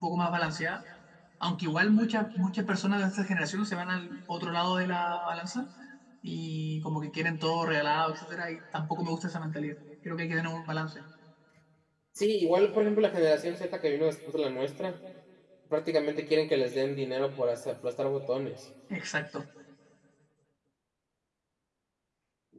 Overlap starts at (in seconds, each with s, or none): none